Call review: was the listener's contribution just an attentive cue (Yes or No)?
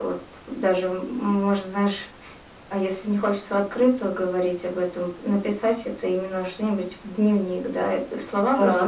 Yes